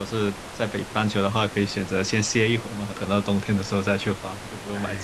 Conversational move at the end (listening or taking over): taking over